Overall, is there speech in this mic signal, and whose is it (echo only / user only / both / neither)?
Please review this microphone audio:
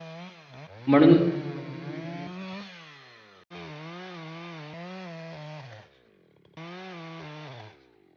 user only